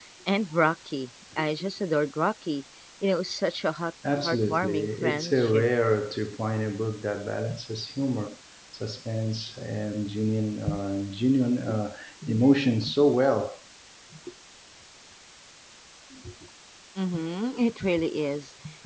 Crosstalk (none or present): present